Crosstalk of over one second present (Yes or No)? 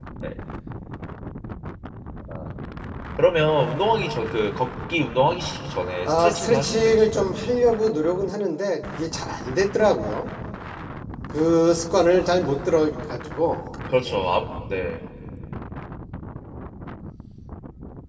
Yes